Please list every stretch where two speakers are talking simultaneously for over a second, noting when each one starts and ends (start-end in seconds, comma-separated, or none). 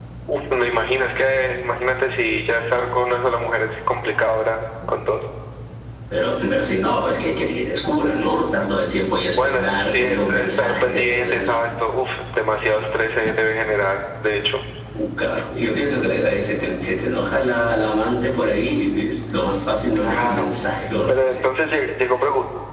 9.3-11.7